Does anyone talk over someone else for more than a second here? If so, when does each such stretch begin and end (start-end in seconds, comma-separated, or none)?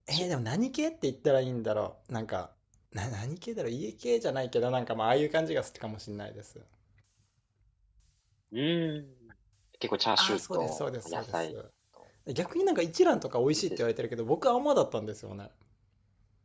10.2-11.5